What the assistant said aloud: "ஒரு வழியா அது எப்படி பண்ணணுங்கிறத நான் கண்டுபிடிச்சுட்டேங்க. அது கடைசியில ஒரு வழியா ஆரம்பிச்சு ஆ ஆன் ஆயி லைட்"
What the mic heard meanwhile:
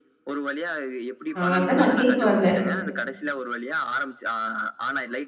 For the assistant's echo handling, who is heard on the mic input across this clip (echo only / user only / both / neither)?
both